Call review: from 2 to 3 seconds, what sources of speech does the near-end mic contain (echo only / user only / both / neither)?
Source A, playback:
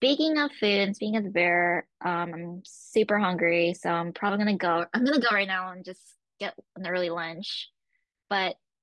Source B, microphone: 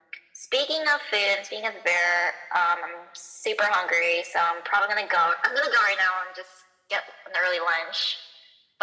echo only